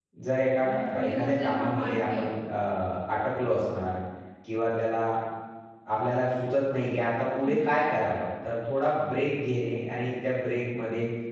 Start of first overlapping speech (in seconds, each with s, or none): 0.6 s